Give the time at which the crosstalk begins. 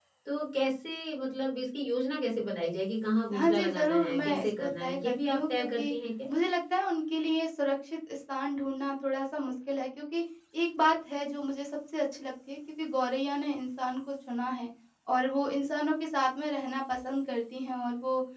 3 s

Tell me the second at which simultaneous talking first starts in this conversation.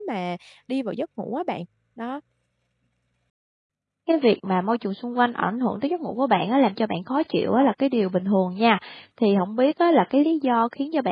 none

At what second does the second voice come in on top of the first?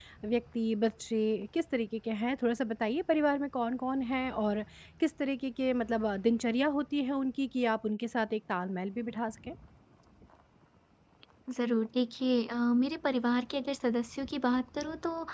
none

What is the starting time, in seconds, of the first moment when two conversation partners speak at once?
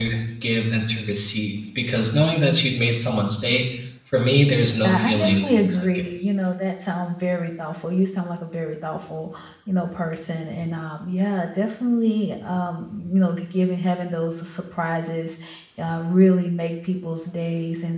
5 s

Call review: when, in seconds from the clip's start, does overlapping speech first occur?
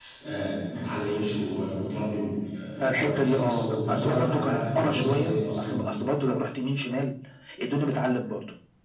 3 s

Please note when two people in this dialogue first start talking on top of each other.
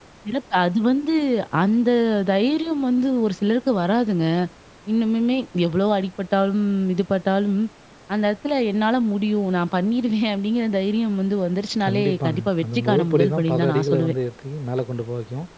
12 s

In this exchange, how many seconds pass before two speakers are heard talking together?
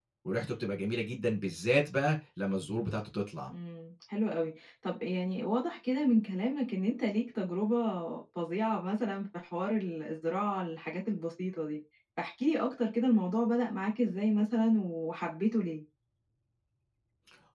none

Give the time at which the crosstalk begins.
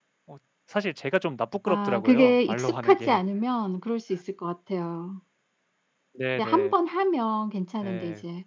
2 s

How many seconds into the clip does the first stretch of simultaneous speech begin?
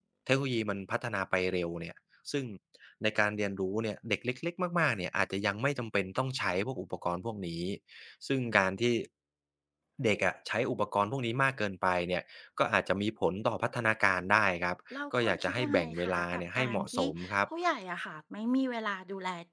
15 s

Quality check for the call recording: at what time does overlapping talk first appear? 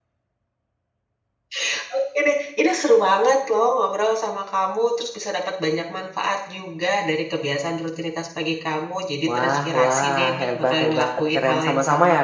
9 s

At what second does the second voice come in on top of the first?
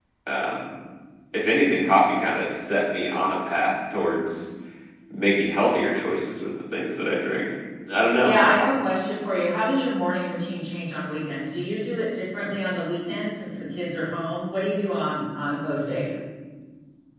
none

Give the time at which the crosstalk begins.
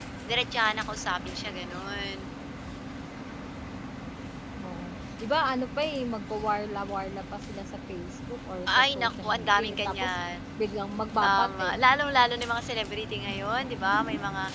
9 s

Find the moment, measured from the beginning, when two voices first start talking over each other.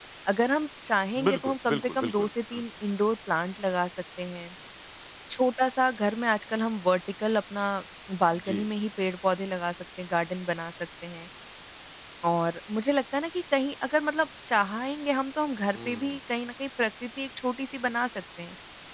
1 s

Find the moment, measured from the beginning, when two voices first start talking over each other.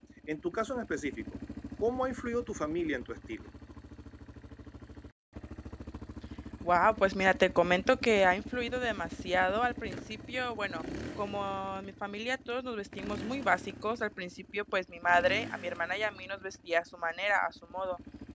none

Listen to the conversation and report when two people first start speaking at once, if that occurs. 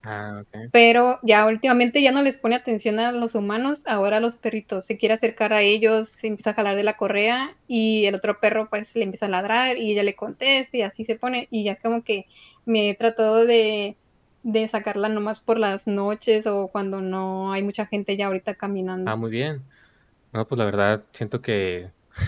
none

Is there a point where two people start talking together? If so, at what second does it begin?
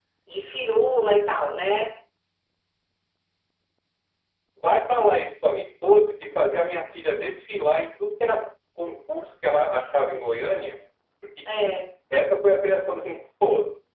none

